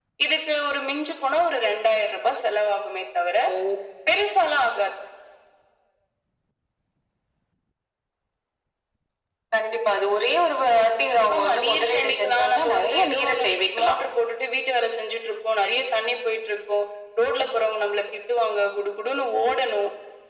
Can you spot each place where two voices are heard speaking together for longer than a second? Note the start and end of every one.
11.3-13.4

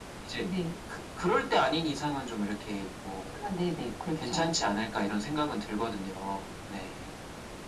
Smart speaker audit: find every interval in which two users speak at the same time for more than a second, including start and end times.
none

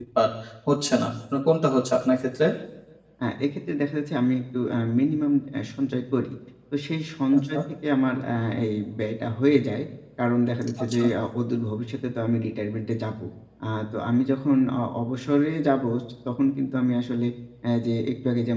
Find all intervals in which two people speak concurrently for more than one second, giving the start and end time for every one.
none

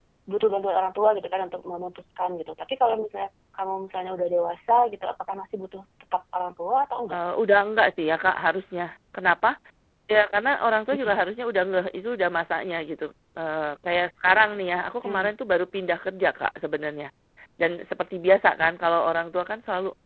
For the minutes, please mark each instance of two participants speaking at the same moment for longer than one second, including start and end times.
none

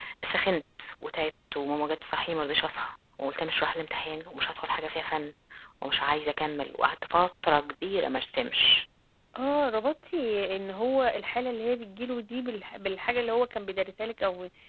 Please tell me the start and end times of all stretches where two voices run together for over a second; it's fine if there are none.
none

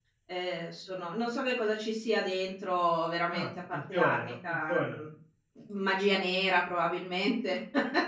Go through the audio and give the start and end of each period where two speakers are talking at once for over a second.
3.3-5.0

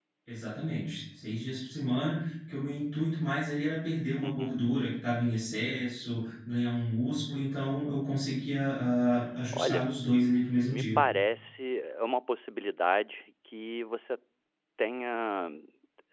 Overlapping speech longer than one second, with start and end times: none

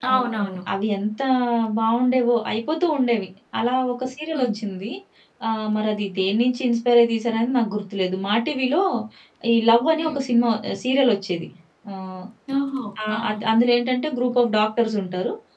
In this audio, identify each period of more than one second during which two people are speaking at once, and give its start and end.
none

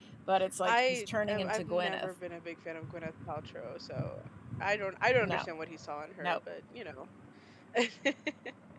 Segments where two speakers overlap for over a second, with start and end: 0.6-2.1

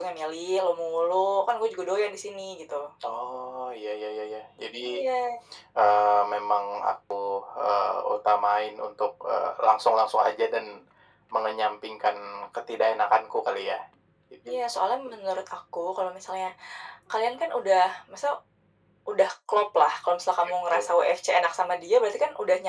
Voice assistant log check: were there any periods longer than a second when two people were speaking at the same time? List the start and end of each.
none

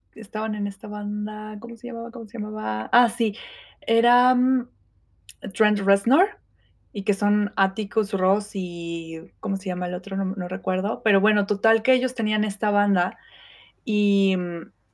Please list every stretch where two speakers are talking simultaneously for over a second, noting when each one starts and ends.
none

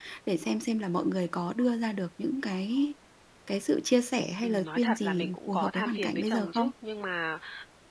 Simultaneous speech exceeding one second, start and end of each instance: 4.4-6.7

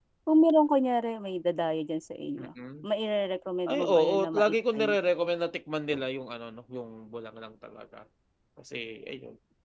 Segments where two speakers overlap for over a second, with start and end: 3.7-5.0

